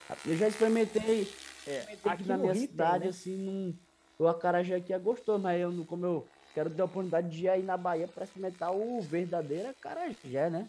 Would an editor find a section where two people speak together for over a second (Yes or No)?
Yes